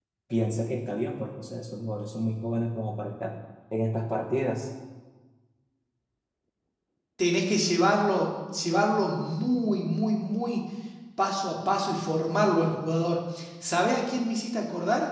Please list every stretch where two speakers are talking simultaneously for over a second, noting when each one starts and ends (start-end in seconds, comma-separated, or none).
none